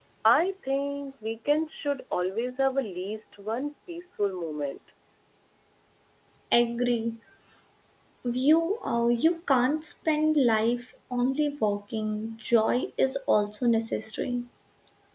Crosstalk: none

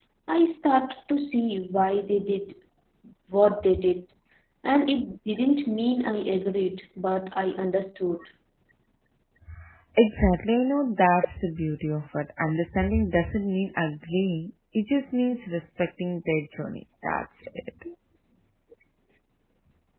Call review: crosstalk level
none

